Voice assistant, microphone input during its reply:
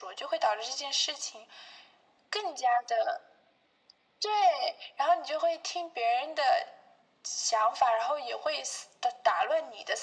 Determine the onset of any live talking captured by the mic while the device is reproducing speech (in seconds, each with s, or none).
none